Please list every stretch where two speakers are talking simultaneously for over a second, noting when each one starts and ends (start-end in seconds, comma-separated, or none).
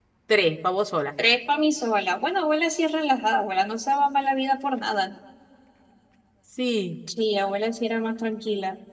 none